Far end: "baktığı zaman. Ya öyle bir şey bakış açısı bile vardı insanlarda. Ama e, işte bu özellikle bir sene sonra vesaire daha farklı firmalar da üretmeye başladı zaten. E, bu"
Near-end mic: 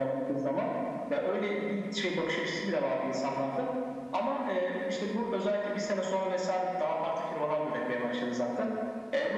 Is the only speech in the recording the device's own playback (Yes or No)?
Yes